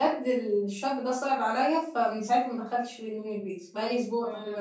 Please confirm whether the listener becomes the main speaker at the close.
Yes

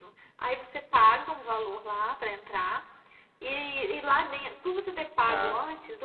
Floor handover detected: No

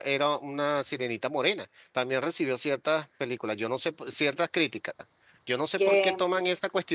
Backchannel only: Yes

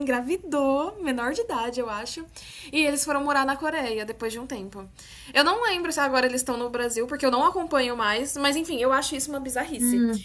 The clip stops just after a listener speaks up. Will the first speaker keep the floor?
No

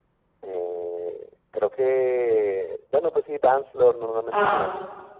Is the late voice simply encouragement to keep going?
No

